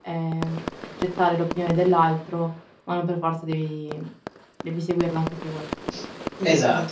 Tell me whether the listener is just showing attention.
No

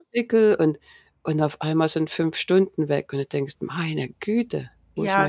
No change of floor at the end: No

